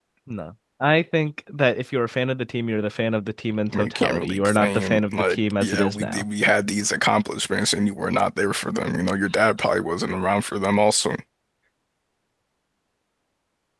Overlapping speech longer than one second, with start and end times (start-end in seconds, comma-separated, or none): 3.7-6.2